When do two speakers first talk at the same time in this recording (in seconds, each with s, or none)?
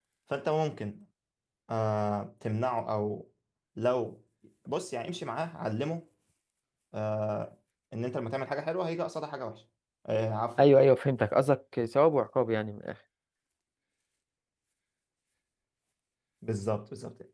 none